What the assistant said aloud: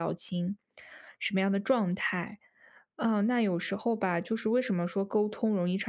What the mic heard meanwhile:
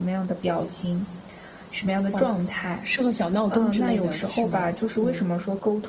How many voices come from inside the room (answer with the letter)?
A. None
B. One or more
B